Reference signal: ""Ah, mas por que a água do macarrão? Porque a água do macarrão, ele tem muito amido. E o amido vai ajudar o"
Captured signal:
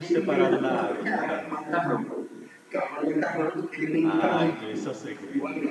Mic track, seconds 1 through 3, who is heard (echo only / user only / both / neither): both